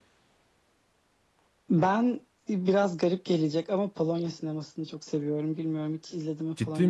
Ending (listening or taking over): taking over